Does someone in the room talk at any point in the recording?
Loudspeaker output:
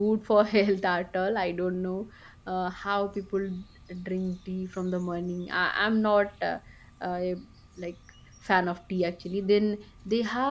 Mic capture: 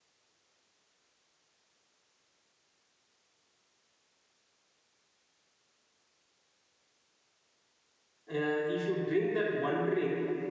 Yes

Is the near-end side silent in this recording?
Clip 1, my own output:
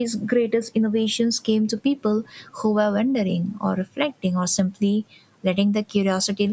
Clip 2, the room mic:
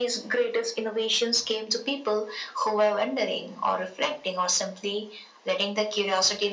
Yes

